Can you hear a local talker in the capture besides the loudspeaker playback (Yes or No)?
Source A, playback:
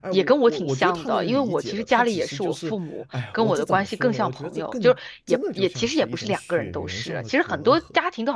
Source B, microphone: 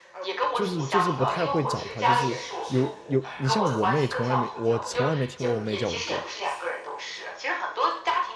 Yes